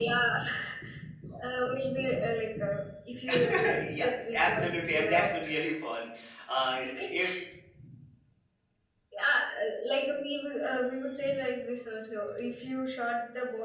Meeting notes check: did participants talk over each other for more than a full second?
Yes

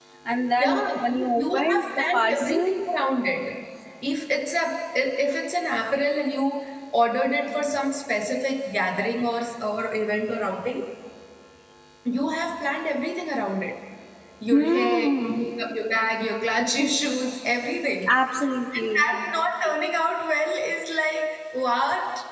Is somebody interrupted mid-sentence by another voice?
Yes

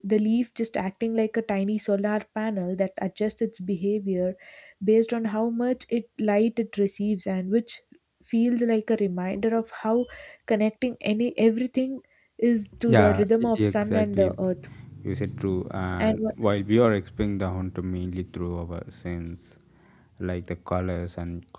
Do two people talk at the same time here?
Yes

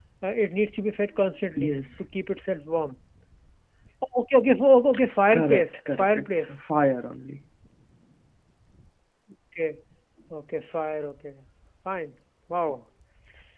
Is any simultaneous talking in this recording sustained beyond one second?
Yes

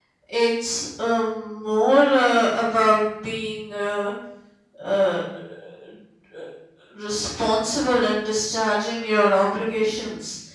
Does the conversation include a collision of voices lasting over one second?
No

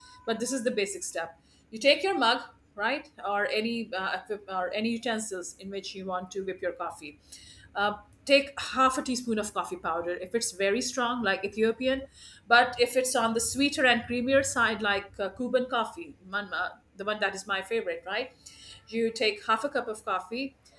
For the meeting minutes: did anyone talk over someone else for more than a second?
No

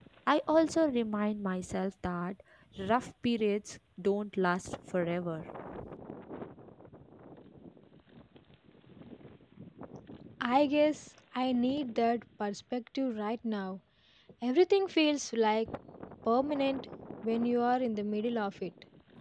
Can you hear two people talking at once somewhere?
No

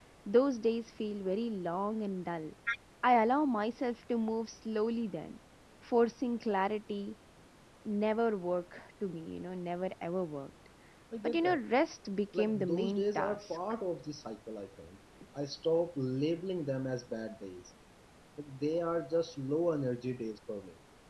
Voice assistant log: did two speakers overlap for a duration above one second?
Yes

